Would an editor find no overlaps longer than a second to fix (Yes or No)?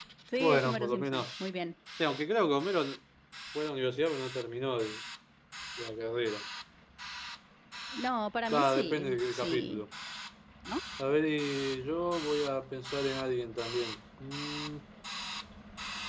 No